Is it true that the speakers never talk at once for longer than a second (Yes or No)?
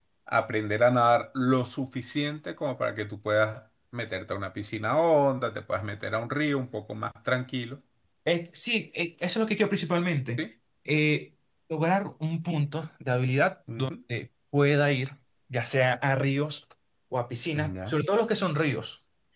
Yes